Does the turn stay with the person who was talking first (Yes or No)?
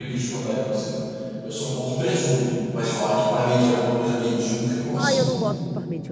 No